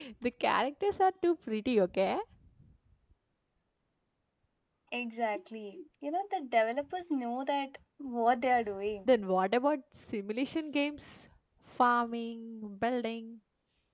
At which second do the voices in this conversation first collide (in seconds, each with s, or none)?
none